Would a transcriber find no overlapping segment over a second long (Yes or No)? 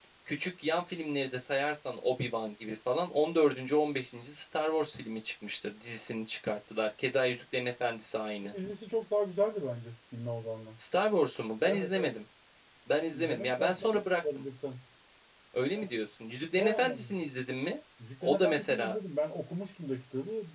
No